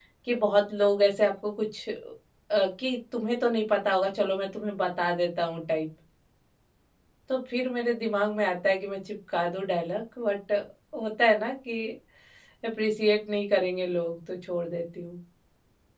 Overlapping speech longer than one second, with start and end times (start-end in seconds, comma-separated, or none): none